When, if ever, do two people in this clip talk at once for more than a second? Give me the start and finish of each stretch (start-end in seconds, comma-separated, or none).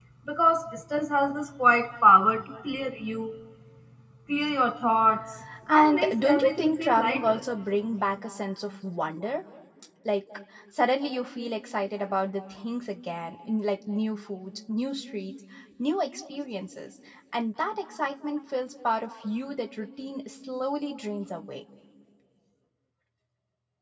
5.7-7.4